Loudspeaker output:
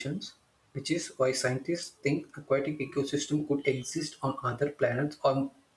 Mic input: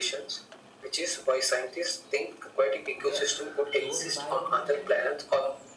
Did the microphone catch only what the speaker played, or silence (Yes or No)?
No